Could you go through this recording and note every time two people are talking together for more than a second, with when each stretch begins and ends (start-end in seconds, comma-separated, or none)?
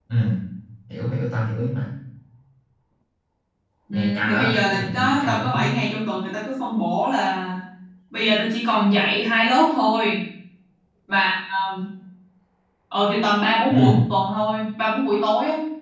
3.9-5.5